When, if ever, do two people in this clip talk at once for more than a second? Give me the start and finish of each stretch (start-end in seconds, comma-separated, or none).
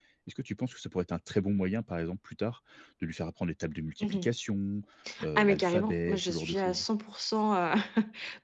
5.4-6.8